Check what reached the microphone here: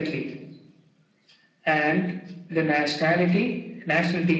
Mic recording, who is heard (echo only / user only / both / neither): echo only